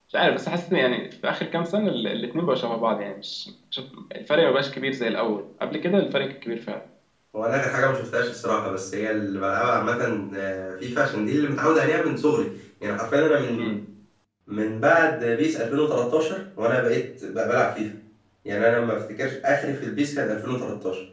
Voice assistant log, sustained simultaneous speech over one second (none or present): none